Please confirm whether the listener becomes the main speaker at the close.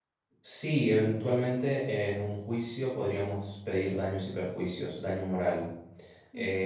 Yes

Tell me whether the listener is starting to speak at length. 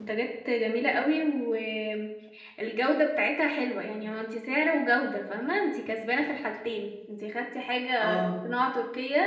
No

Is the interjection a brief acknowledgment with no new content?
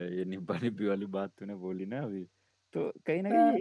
Yes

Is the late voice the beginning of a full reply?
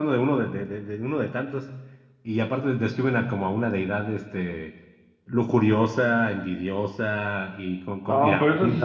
Yes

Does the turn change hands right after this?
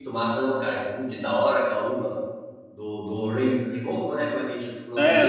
Yes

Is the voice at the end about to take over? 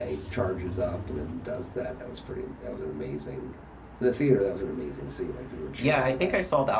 Yes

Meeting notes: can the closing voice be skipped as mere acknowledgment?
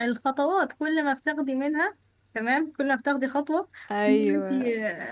Yes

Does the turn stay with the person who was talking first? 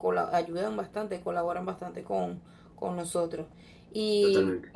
Yes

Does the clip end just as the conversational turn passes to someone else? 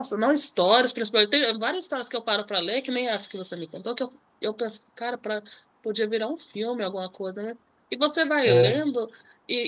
No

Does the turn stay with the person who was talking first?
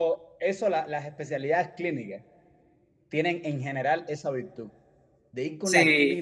Yes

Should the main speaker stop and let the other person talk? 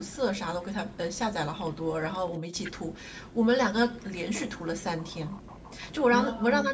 No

